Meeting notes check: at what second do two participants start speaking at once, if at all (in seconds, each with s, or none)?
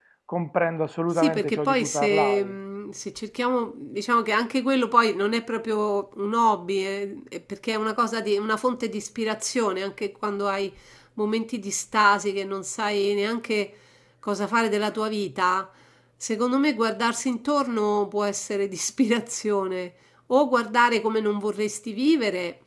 1.2 s